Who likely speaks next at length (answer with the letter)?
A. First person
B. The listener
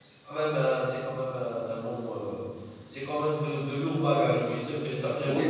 B